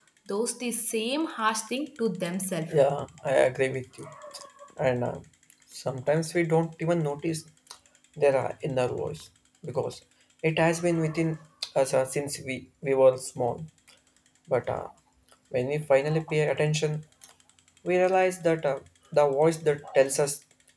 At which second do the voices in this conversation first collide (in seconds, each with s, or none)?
none